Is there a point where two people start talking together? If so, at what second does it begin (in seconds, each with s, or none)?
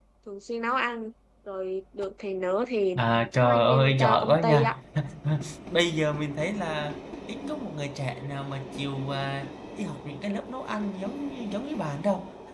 3.4 s